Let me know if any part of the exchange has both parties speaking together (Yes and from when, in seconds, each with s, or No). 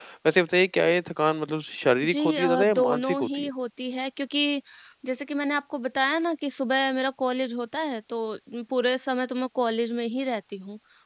Yes, from 2.0 s